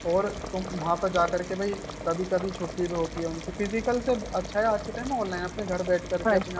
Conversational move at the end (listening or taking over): taking over